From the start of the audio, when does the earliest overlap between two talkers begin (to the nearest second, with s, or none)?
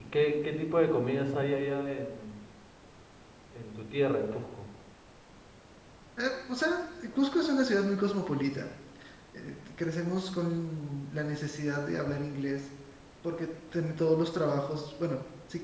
none